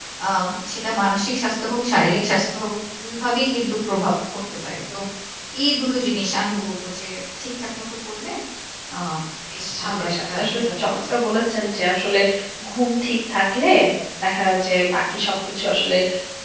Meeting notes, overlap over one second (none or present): present